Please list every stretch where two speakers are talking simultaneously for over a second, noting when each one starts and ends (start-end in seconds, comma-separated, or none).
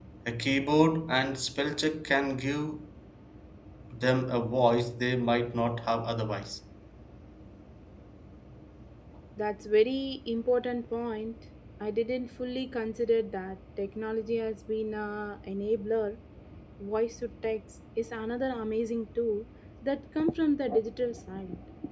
none